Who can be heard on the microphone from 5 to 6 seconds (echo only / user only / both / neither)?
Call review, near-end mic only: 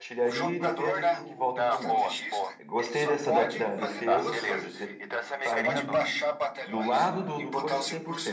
both